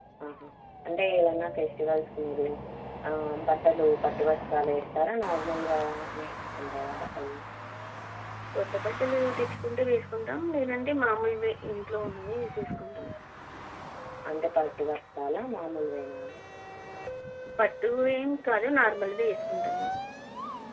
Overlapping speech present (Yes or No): No